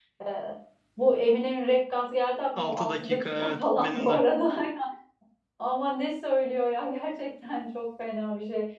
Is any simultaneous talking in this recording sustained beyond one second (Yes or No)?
Yes